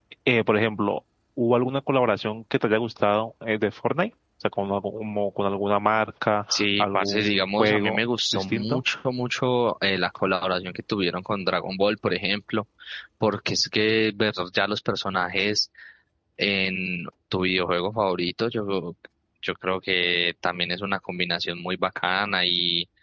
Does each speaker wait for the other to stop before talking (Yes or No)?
No